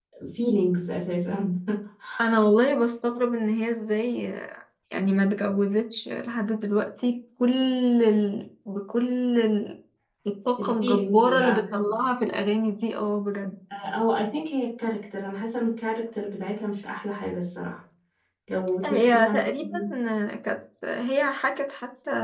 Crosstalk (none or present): present